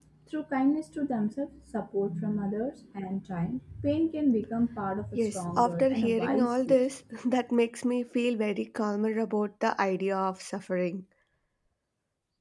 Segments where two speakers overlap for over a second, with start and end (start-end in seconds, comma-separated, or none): 5.2-6.8